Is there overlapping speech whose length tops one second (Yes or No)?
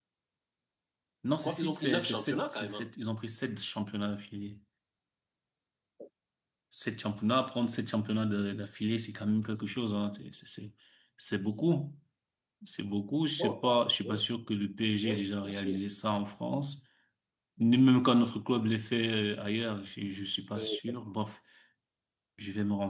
Yes